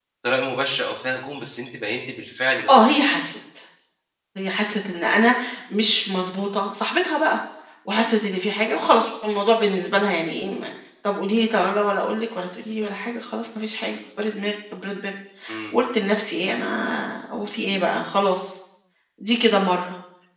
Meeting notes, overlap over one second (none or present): none